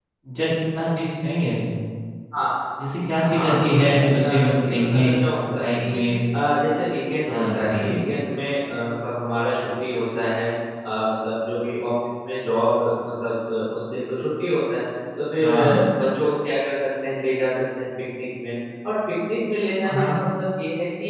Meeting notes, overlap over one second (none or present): present